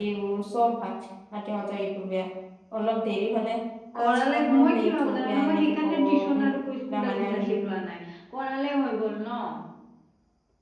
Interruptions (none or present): present